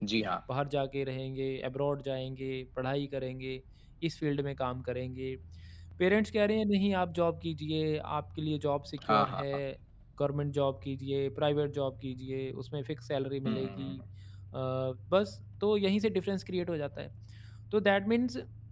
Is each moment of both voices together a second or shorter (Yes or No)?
Yes